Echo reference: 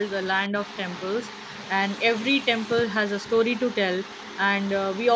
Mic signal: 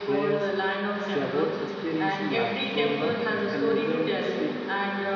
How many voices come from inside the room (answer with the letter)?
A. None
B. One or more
B